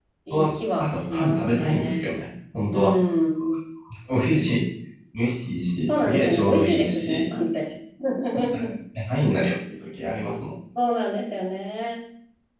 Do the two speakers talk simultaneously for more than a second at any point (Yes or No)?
Yes